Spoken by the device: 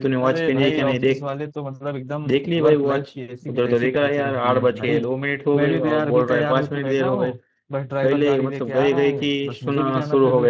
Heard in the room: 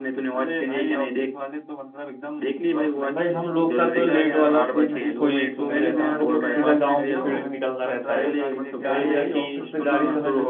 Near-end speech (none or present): present